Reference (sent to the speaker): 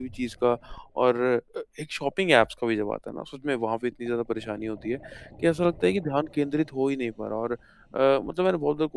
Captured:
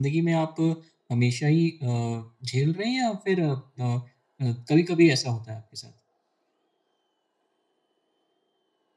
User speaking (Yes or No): Yes